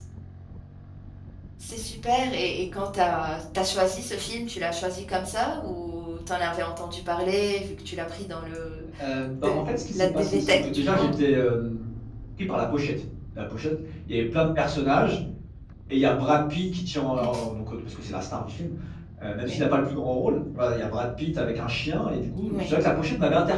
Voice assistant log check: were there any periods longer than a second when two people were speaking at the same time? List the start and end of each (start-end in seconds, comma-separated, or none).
9.4-11.1